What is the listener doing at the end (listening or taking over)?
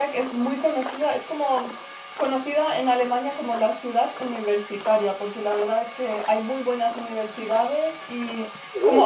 listening